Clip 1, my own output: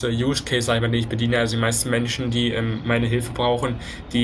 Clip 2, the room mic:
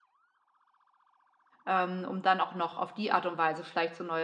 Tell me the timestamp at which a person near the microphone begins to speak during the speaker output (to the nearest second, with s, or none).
2 s